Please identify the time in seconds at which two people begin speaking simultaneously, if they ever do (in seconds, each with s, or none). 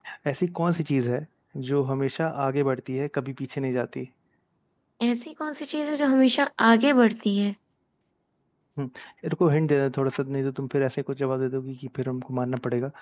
none